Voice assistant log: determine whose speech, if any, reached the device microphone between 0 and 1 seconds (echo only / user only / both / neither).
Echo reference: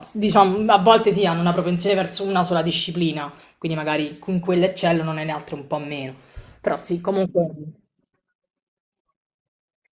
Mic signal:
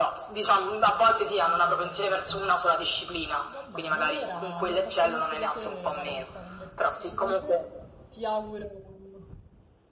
echo only